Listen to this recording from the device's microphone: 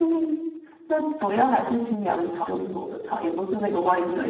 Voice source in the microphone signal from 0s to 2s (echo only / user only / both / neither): echo only